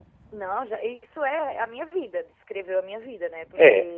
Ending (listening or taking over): listening